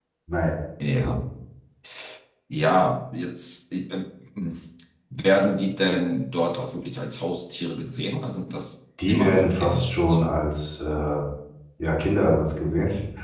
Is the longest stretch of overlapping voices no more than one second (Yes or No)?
No